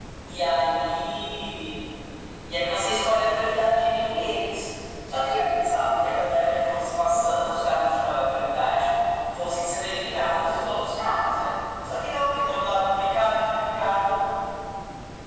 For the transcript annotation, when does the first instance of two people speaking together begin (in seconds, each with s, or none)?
2.6 s